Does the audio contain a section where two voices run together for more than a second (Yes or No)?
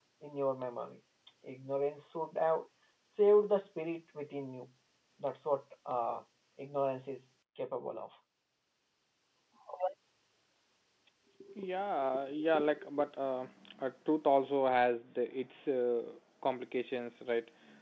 No